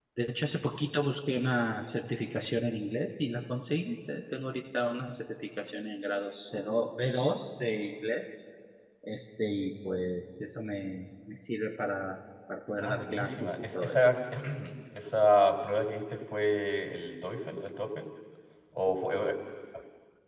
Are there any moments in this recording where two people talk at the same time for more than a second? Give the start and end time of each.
12.8-14.1

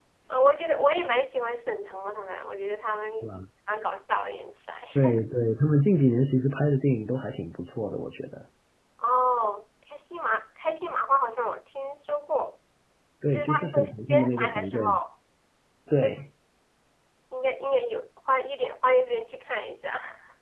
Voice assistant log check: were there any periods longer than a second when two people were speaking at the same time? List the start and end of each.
13.3-14.8

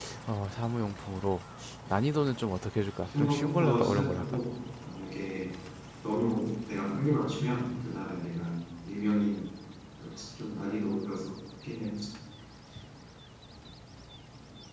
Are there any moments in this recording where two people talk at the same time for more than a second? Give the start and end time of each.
3.2-4.4

